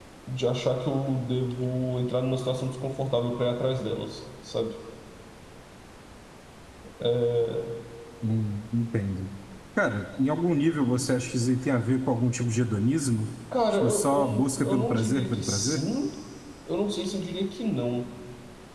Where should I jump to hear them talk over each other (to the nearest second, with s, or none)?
14 s